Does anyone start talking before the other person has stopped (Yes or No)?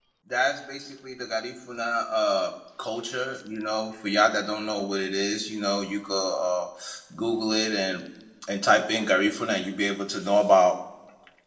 No